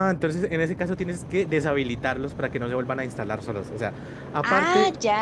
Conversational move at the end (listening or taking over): listening